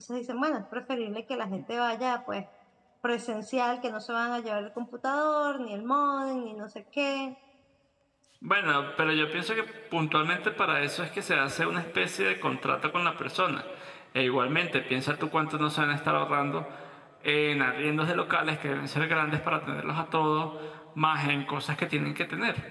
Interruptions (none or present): none